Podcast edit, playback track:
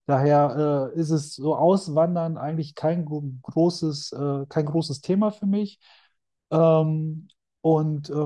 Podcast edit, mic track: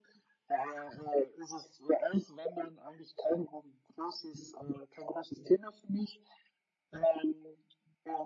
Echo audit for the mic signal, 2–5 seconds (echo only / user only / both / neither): echo only